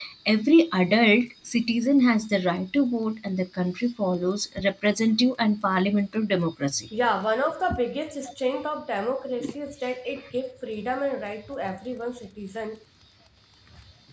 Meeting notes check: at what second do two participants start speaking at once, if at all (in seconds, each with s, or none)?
none